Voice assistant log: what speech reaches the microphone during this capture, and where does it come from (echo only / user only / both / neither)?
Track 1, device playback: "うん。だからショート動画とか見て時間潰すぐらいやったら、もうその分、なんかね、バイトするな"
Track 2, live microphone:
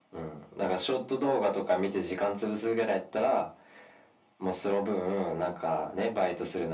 echo only